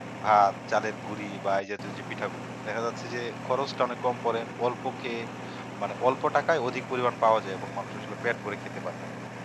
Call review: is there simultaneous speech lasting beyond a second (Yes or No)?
No